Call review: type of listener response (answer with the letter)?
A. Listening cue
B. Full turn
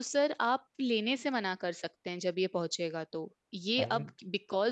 A